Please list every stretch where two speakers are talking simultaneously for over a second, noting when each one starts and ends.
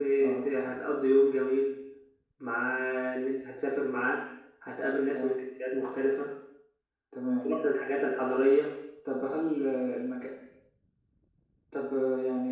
none

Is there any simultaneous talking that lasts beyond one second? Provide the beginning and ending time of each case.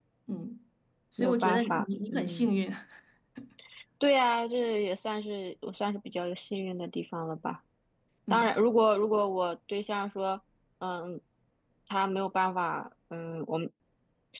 1.2-2.5

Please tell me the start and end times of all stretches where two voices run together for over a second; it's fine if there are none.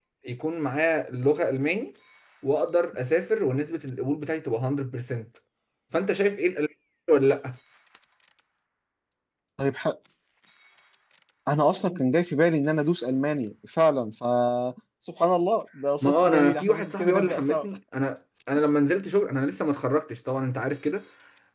16.0-17.6

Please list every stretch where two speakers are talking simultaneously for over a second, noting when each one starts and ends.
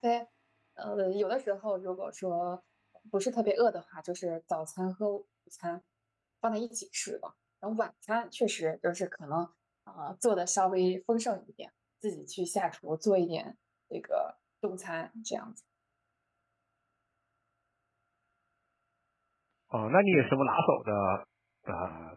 none

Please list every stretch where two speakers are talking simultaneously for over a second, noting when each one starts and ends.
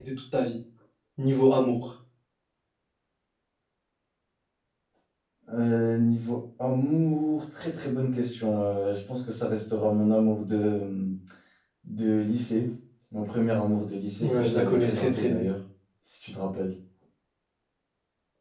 14.2-15.4

